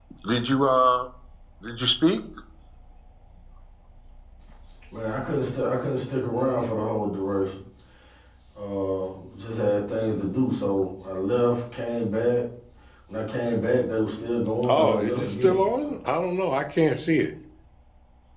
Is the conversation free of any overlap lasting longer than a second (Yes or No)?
No